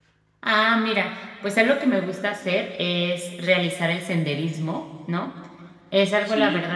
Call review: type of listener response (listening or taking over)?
listening